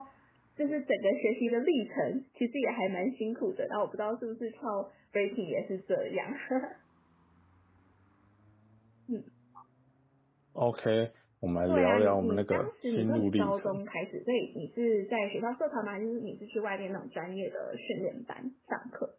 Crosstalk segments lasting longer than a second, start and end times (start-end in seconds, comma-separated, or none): 11.7-13.8